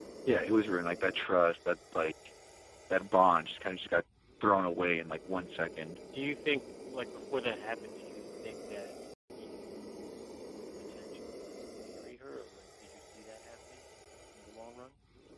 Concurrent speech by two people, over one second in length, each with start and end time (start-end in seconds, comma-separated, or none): none